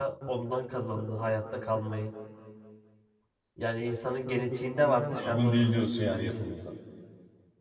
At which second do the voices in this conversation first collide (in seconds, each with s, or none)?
5.2 s